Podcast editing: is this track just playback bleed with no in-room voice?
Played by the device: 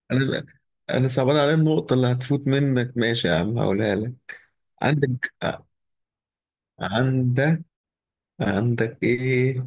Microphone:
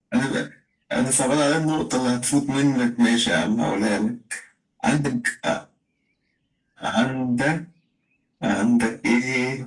Yes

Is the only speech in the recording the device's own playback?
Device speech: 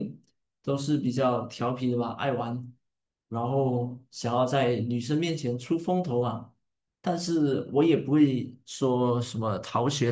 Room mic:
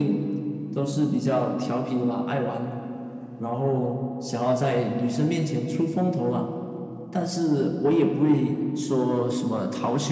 Yes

